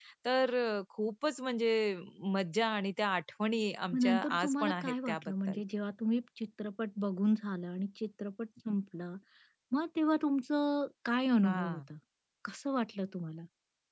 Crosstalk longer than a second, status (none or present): present